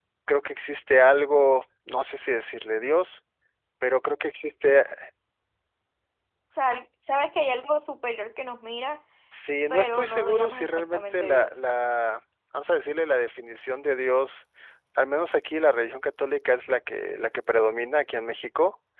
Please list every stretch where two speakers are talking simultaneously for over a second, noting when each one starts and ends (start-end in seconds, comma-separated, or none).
9.7-11.5